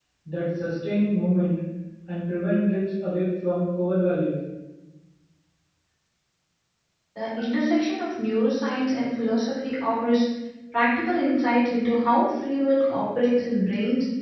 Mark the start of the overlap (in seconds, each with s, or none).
none